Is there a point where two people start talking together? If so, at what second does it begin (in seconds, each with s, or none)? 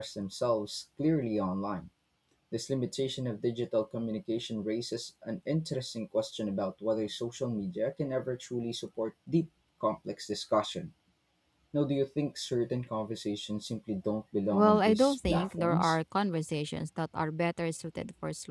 14.5 s